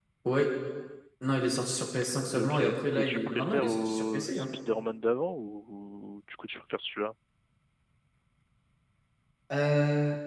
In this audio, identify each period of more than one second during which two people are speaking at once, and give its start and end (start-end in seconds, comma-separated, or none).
2.3-4.5